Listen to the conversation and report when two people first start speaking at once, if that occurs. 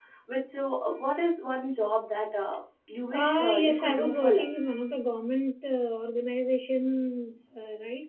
3.1 s

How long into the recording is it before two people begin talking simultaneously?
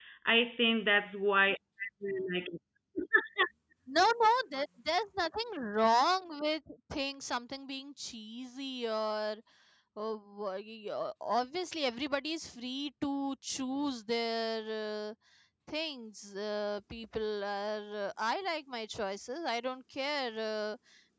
none

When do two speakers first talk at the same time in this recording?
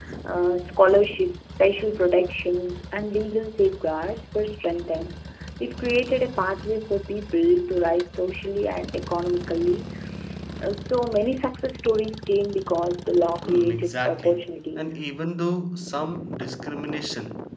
13.4 s

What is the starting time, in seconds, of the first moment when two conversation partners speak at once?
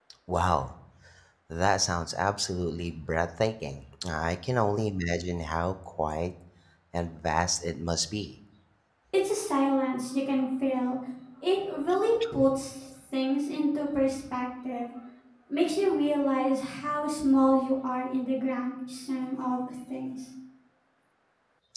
none

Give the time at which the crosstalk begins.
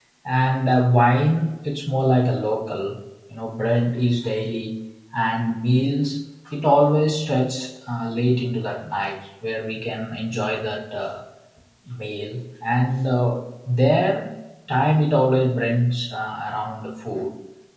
none

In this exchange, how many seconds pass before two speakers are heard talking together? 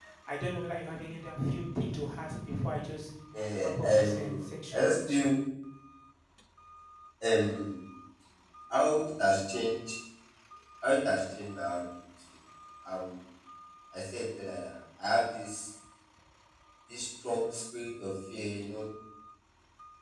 3.6 s

